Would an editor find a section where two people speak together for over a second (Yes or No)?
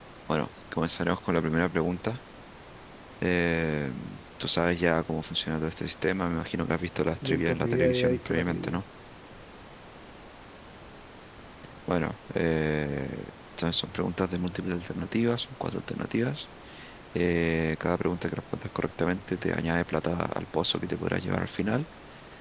Yes